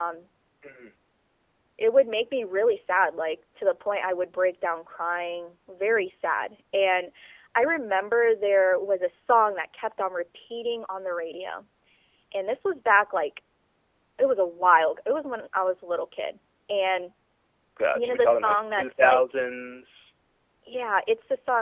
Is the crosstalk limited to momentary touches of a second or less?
No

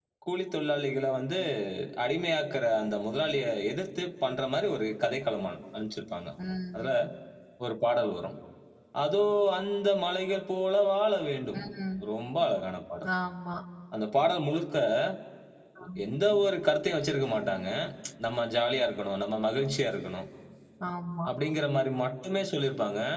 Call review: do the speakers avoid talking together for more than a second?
Yes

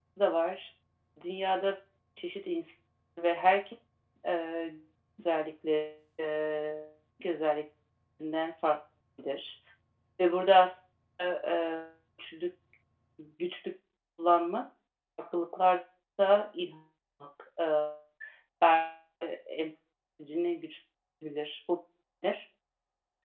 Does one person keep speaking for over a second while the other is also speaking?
No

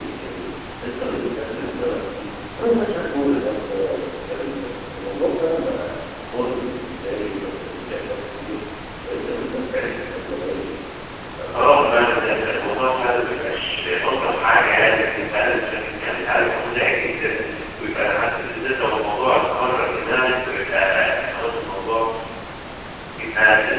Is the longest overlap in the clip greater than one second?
Yes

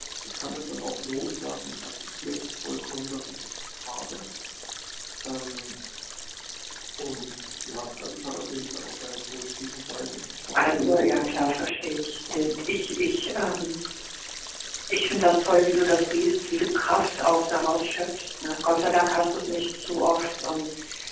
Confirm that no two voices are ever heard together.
No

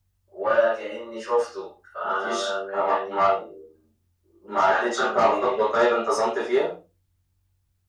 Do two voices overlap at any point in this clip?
Yes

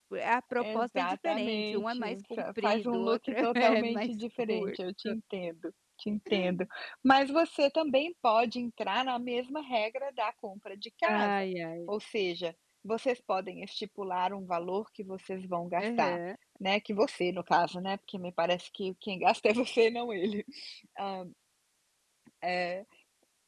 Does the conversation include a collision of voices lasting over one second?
Yes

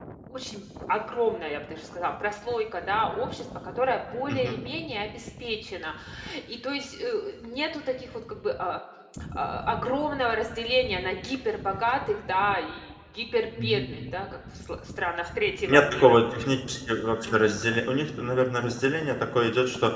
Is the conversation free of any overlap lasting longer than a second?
Yes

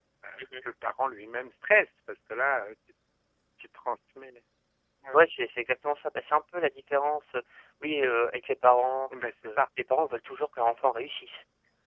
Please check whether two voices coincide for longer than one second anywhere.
No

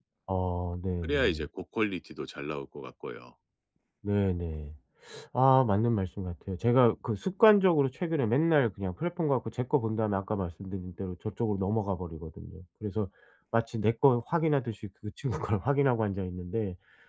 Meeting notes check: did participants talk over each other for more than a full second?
No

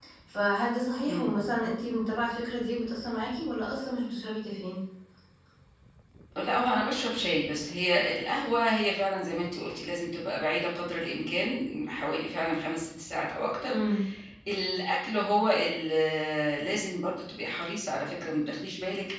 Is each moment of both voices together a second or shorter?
Yes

